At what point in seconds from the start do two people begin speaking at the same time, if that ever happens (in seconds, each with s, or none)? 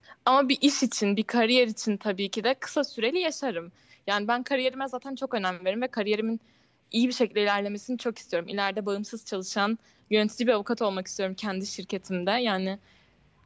none